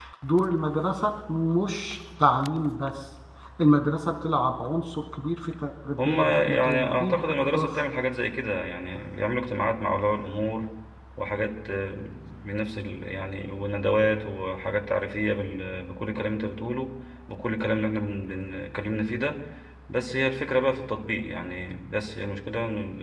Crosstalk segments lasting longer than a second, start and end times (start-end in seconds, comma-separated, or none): 6.0-7.8